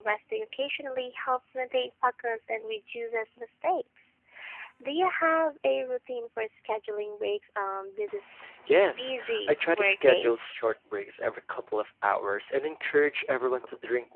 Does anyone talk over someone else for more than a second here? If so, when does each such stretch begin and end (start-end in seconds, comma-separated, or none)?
8.9-10.6